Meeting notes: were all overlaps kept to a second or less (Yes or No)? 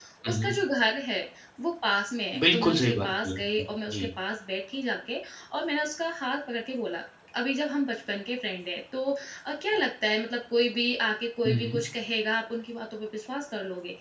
No